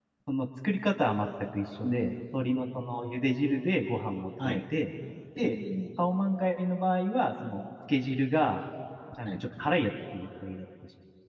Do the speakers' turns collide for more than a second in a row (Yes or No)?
No